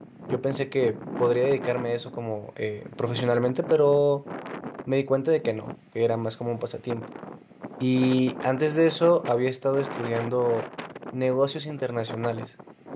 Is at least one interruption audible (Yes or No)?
No